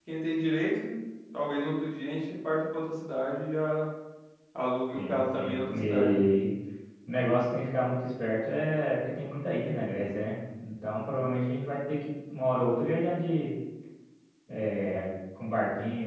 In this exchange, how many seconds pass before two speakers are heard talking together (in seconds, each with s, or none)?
5.0 s